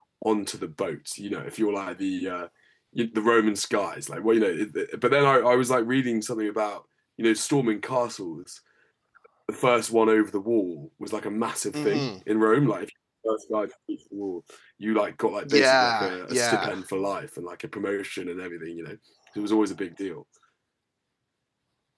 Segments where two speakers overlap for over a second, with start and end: 15.4-16.8

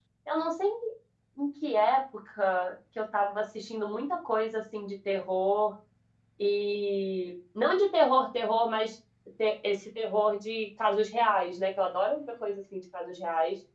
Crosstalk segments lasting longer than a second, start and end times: none

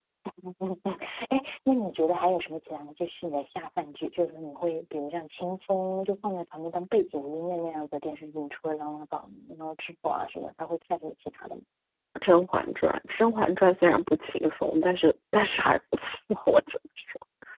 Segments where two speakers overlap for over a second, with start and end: none

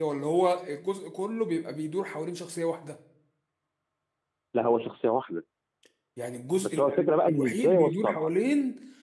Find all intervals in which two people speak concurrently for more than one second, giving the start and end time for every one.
6.6-8.3

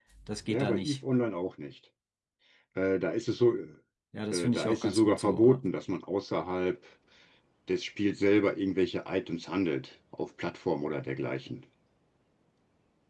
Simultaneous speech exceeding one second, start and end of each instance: 4.3-5.6

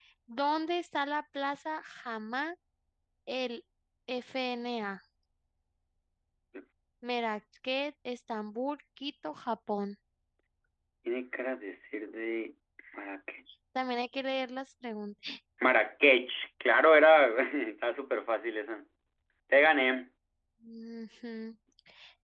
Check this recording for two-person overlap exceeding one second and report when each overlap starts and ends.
none

